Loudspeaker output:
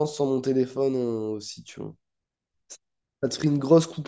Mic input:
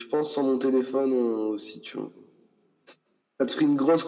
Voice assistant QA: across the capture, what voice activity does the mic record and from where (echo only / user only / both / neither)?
echo only